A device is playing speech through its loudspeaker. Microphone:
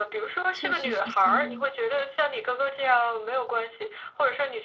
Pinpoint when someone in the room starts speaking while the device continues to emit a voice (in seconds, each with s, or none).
0.5 s